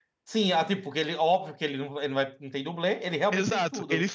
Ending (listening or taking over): taking over